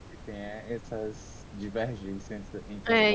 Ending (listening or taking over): taking over